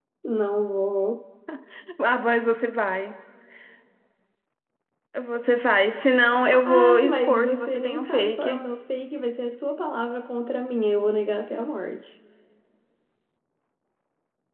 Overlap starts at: 6.5 s

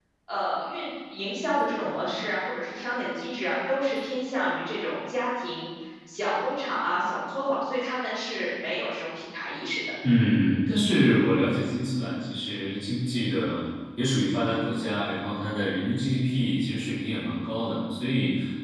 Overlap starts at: none

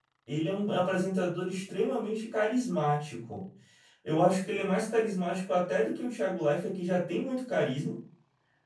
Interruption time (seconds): none

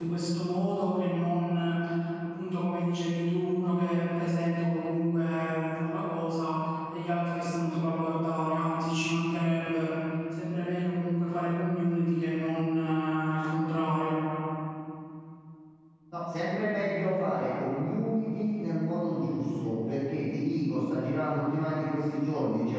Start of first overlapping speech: none

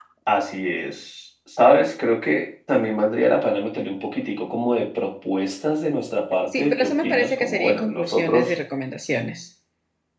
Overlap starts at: 6.5 s

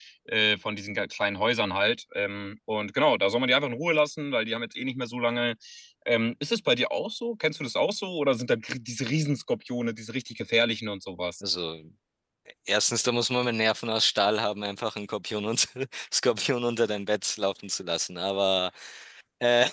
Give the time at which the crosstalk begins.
none

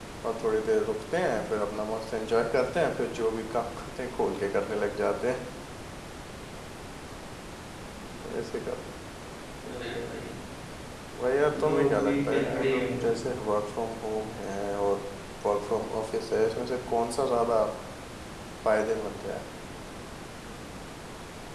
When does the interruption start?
11.6 s

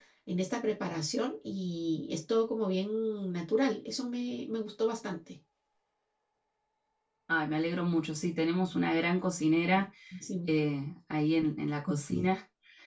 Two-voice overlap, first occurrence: none

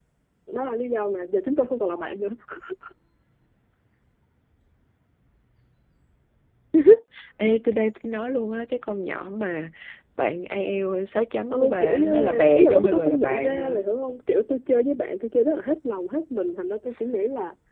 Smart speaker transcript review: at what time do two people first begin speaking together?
11.5 s

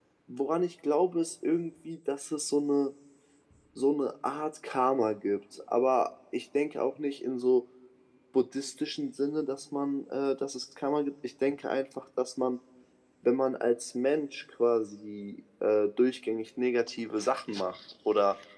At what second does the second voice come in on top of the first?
none

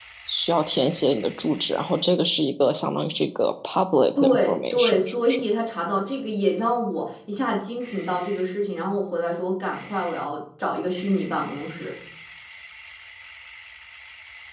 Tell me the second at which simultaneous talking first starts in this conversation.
4.2 s

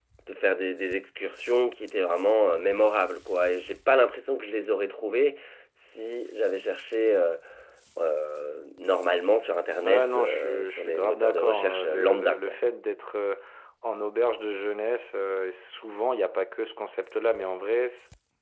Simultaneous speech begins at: 9.8 s

